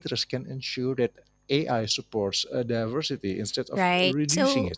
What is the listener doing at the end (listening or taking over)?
taking over